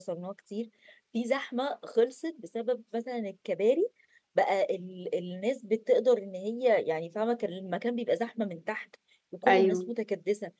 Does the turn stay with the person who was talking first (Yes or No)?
Yes